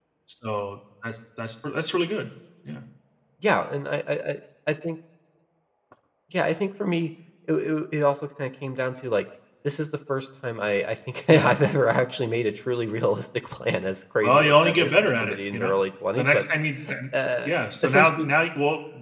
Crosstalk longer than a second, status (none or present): present